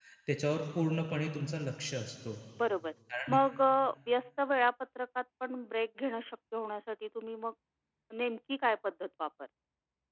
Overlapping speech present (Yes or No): No